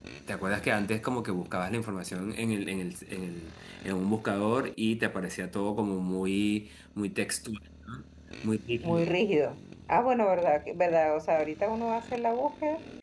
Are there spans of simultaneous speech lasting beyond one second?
No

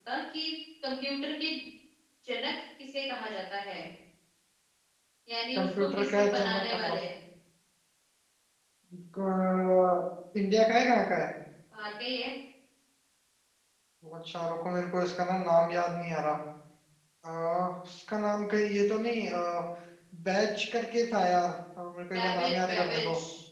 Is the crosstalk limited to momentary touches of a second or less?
No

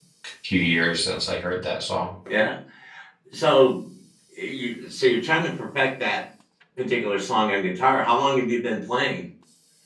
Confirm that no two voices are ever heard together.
Yes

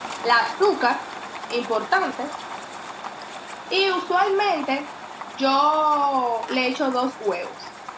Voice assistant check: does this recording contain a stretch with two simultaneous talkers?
No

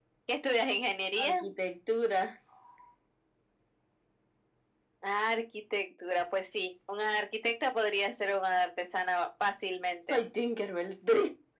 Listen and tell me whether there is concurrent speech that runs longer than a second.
No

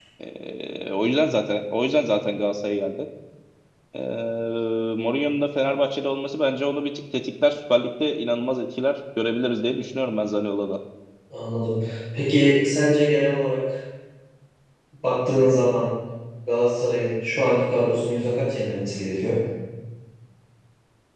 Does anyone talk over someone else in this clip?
No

